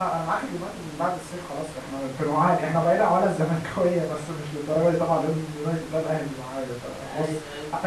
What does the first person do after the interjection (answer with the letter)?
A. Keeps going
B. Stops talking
A